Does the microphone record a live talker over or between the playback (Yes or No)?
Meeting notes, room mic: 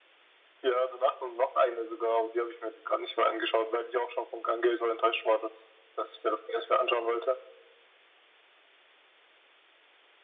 No